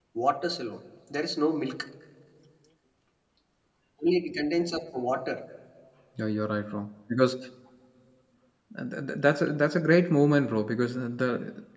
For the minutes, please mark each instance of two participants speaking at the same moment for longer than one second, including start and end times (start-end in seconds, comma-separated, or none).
none